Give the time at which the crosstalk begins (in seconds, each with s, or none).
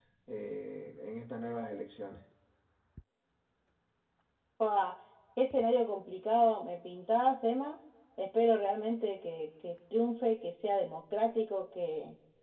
none